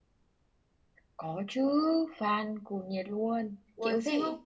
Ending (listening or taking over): taking over